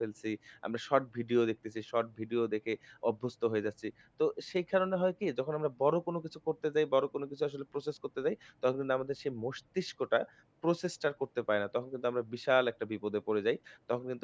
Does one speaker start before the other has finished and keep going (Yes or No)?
No